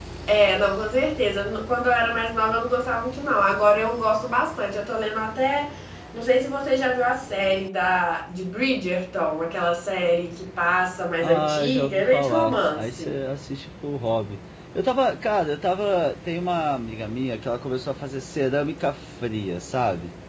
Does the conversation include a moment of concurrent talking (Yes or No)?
Yes